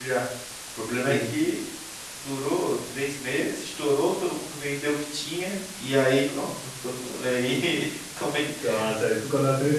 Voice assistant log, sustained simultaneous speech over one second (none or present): none